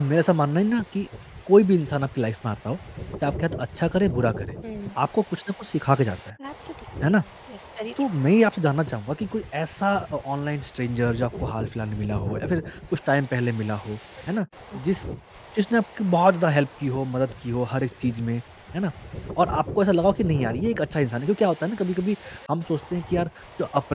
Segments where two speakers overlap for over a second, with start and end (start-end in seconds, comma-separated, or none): none